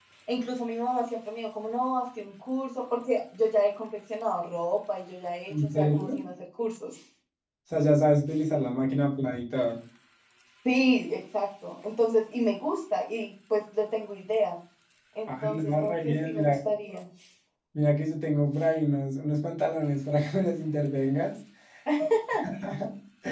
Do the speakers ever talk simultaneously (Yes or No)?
Yes